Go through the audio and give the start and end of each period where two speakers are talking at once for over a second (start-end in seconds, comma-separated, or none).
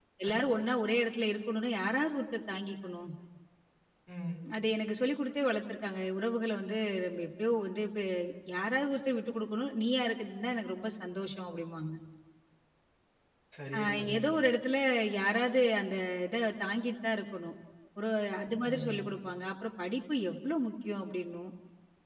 none